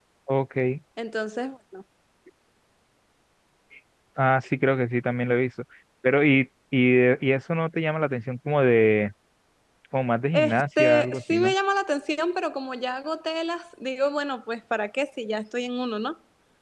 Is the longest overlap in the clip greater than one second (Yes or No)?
Yes